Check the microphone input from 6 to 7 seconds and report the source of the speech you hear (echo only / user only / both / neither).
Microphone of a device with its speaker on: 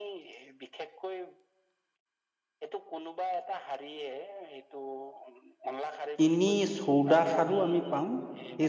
both